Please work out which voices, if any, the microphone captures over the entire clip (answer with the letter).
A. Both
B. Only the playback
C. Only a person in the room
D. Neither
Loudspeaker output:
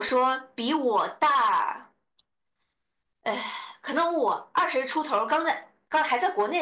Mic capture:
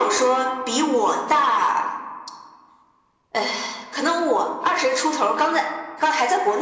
B